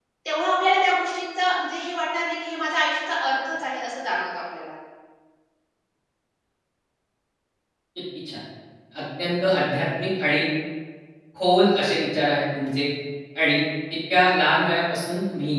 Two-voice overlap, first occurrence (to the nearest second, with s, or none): none